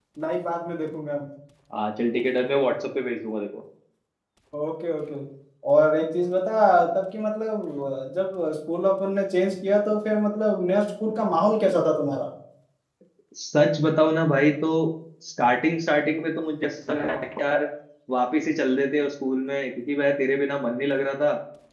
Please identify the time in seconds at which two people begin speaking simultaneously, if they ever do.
none

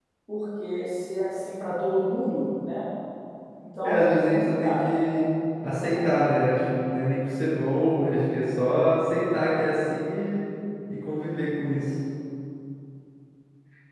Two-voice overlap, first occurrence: 3.8 s

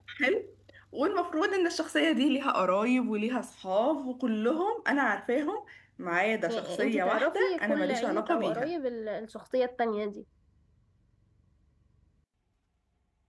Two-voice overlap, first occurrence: 6.5 s

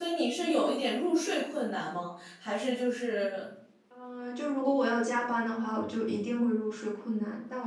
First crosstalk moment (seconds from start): none

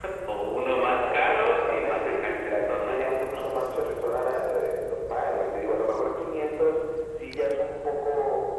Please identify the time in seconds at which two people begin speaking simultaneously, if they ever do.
0.8 s

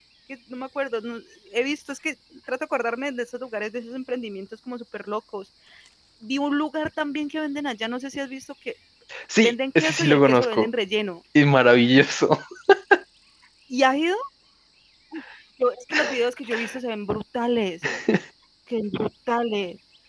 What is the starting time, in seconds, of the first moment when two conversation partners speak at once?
9.4 s

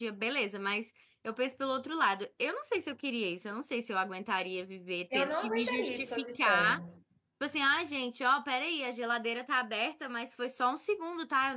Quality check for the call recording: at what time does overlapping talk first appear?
5.1 s

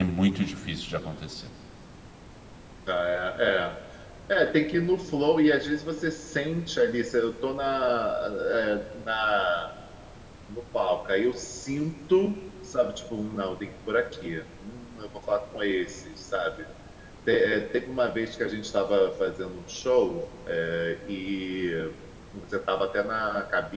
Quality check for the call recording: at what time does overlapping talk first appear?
none

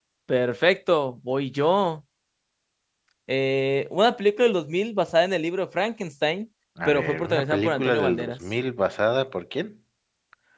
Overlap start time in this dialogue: 6.8 s

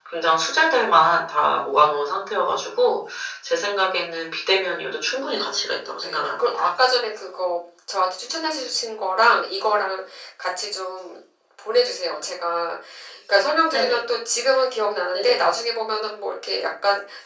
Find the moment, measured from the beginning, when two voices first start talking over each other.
5.2 s

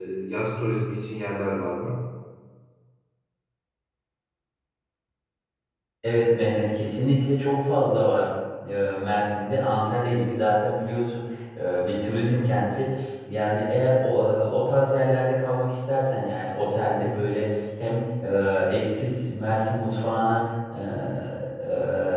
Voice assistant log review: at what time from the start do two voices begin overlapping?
none

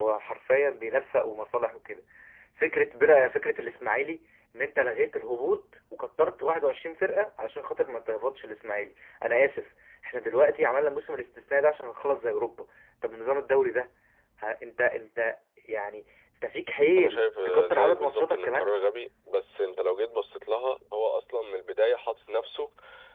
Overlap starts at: 17.0 s

